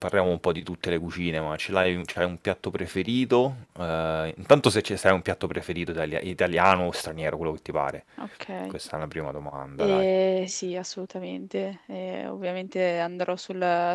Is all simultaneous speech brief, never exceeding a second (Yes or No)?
Yes